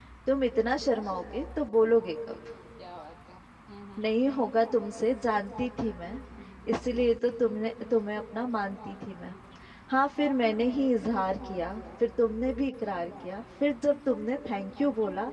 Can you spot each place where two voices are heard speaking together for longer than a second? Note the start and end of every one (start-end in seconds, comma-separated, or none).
none